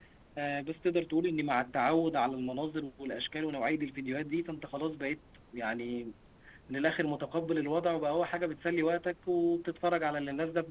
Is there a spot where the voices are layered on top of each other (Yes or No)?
No